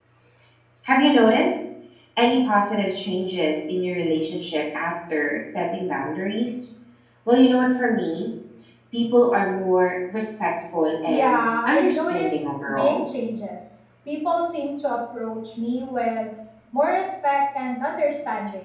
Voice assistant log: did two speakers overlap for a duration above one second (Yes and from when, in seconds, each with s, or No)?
Yes, from 11.1 s